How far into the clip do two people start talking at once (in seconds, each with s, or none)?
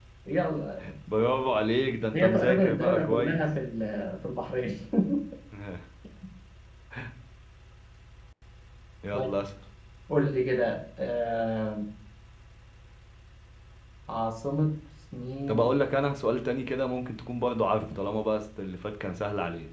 2.2 s